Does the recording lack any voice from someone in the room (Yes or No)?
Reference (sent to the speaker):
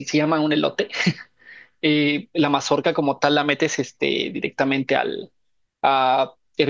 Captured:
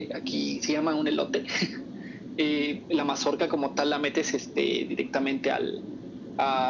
Yes